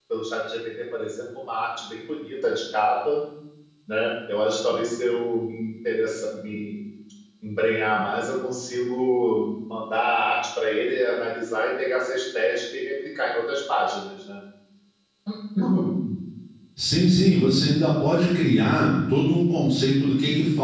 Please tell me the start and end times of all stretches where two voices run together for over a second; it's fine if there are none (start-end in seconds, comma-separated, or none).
none